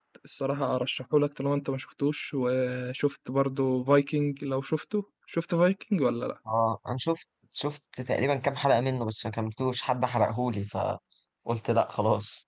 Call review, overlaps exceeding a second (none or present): none